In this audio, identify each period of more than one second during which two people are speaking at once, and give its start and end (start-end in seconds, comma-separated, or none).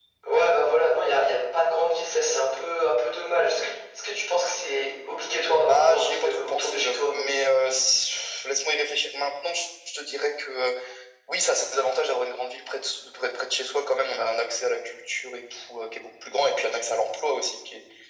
5.6-7.1